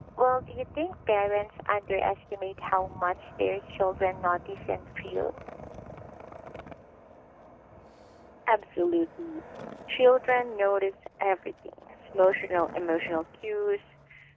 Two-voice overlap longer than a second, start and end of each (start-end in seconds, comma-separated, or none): none